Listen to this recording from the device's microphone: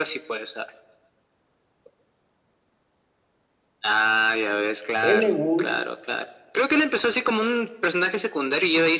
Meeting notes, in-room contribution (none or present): present